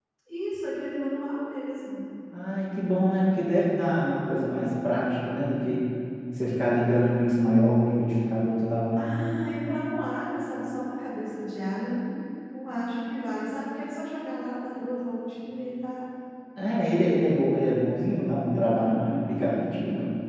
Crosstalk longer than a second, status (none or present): none